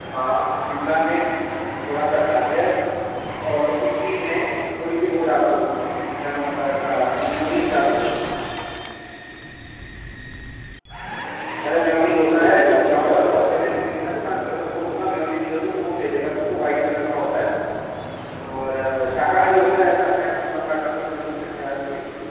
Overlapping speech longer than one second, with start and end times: 12.3-13.7

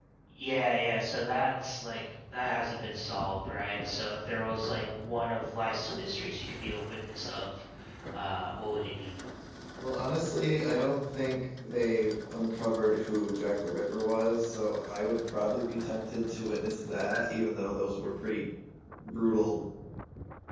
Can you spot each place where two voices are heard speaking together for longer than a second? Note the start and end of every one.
none

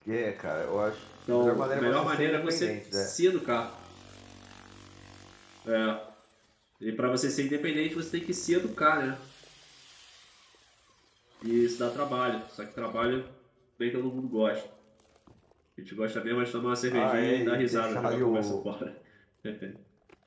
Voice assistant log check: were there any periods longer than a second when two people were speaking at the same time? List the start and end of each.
1.3-3.1, 16.9-18.6

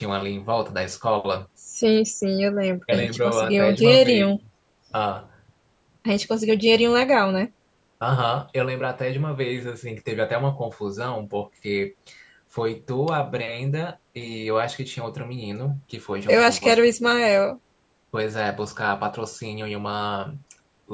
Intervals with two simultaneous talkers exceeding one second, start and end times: 2.9-4.3

